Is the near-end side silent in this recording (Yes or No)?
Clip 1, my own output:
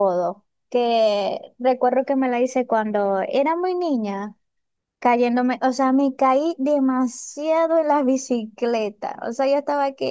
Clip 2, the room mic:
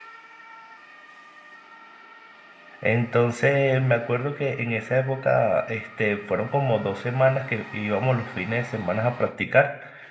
No